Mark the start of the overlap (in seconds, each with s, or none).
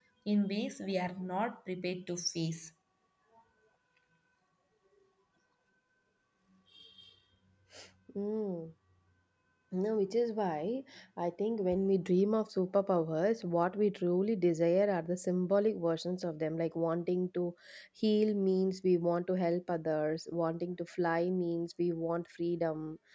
none